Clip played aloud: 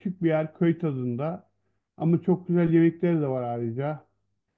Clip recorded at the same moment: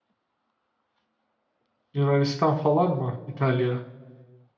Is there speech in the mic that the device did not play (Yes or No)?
Yes